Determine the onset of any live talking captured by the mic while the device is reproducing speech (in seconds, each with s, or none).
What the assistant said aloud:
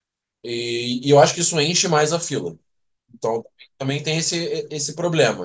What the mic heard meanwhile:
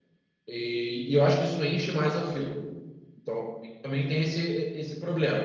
none